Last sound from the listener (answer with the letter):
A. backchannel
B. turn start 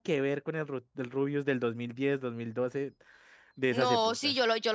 B